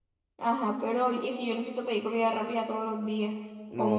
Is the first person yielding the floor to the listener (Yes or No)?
Yes